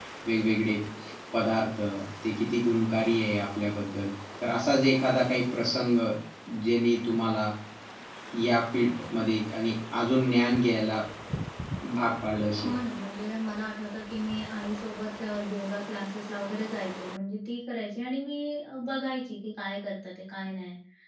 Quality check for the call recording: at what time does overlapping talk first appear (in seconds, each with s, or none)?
none